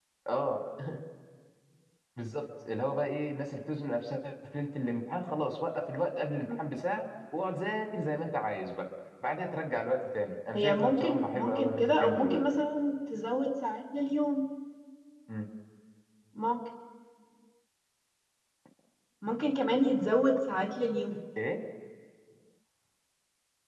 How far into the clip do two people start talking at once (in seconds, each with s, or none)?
10.5 s